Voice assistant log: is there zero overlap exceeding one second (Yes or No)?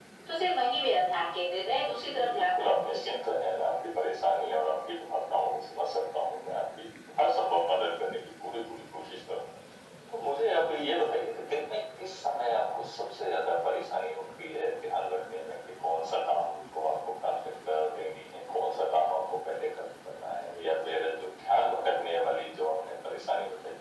No